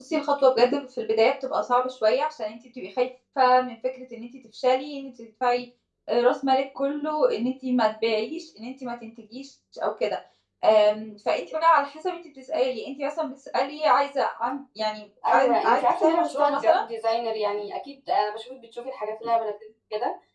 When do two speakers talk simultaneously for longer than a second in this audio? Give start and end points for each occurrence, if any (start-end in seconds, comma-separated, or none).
15.3-16.8